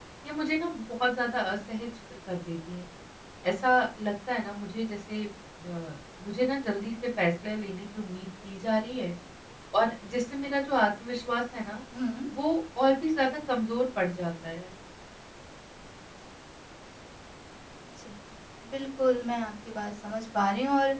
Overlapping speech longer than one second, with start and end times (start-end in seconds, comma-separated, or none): none